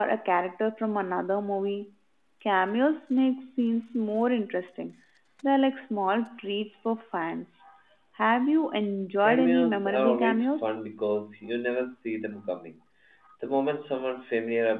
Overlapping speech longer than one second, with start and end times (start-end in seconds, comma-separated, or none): 9.2-10.7